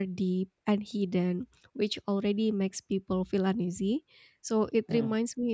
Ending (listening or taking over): listening